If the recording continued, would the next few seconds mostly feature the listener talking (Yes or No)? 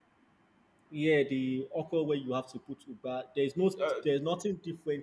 No